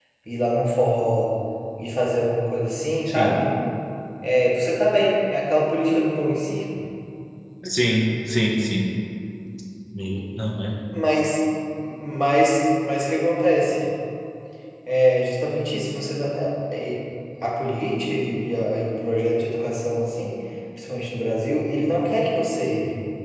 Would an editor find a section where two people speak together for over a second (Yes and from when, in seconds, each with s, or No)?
No